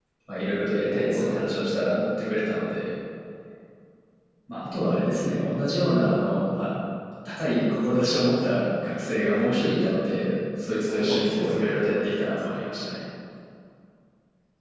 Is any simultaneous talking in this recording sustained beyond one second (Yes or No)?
Yes